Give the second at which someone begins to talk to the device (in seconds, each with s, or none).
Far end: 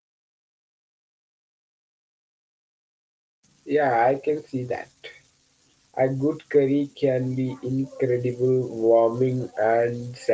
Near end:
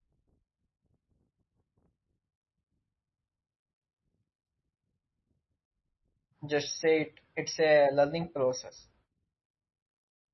6.5 s